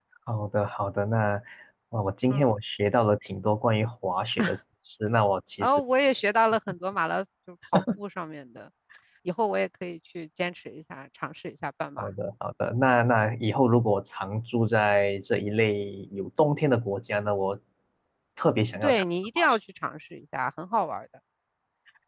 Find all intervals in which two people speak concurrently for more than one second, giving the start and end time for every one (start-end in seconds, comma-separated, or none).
none